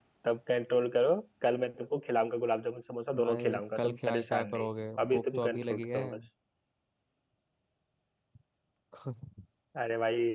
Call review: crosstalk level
present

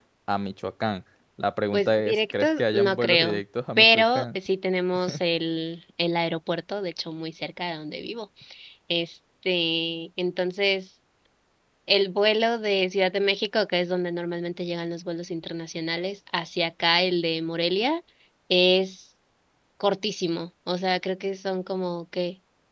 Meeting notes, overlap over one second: present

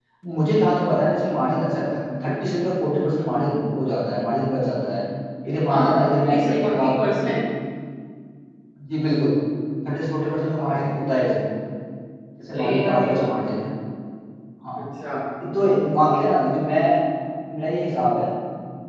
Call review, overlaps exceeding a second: present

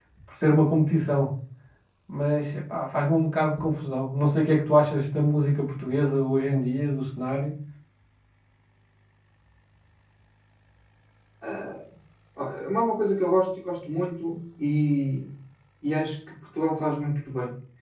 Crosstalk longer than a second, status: none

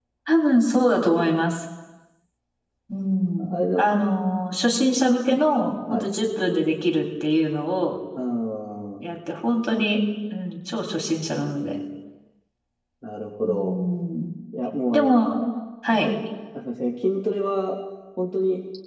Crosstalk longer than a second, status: none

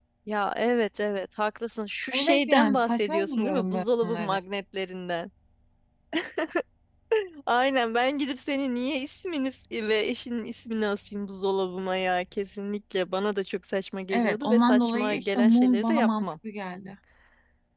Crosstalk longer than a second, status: present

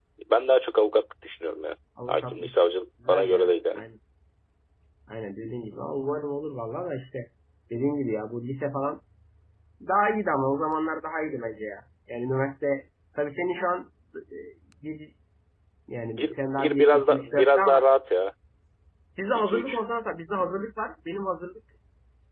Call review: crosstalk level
present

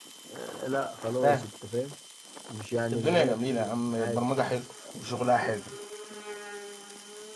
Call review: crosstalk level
present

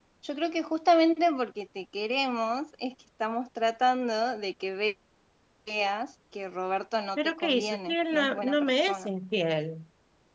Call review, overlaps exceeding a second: present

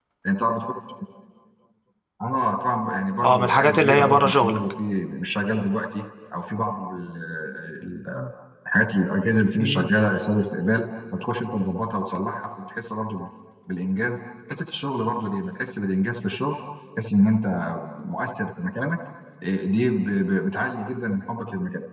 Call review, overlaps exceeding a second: present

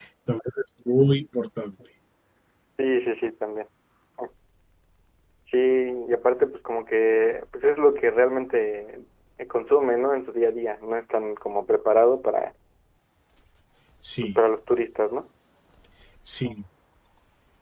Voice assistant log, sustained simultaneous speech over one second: none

